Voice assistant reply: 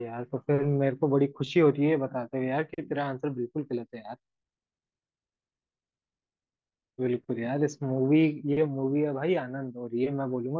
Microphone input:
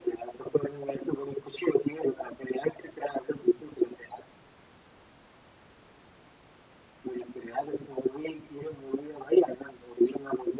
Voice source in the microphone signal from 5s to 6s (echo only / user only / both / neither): neither